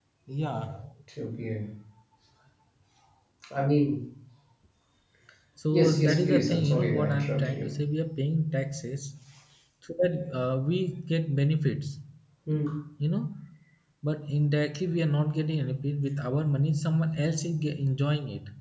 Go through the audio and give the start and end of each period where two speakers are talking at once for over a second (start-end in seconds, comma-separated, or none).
5.7-7.7